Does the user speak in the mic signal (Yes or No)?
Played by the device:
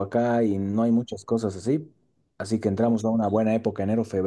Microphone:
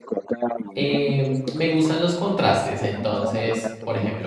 Yes